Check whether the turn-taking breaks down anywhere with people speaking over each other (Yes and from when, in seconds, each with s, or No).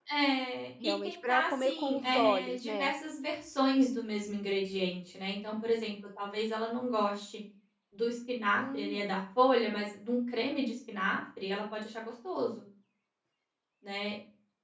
Yes, from 0.8 s